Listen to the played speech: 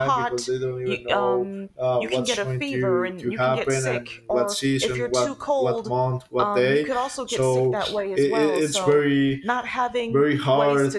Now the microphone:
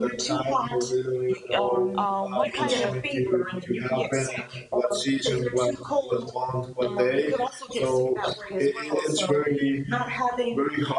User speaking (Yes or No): Yes